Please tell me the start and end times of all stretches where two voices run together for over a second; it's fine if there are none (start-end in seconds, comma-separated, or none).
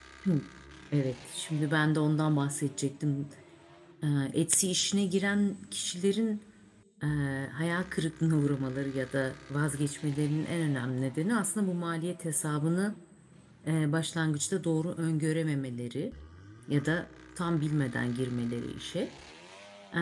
none